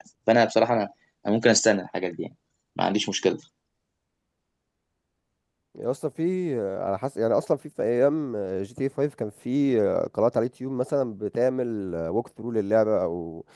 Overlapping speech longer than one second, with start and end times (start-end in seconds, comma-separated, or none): none